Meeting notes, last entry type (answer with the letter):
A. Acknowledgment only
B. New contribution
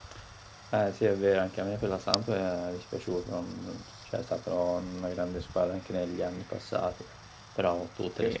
A